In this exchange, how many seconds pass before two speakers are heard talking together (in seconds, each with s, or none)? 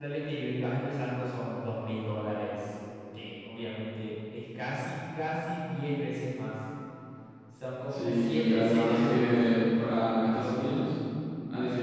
7.9 s